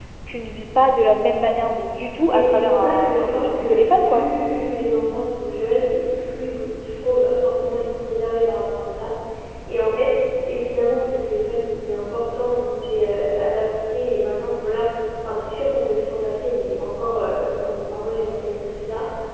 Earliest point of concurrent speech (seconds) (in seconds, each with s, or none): 2.2 s